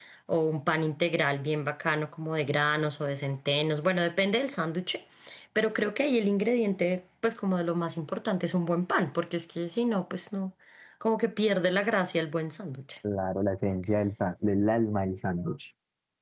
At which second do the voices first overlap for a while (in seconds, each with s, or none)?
none